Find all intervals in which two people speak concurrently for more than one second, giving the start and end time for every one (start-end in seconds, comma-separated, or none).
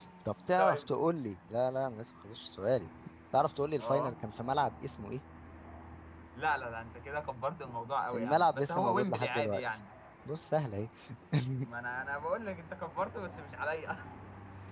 8.1-9.6